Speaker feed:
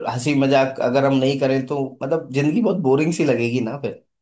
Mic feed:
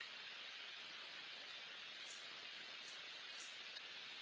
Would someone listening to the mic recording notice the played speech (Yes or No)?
No